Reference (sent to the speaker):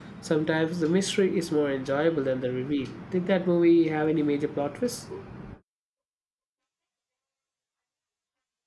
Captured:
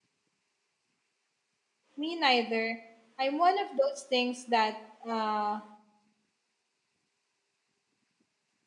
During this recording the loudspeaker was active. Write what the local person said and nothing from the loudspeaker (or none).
Me neither. I'm one of those things that uh,